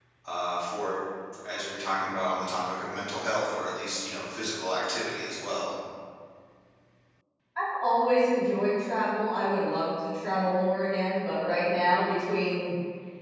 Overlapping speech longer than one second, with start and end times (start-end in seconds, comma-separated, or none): none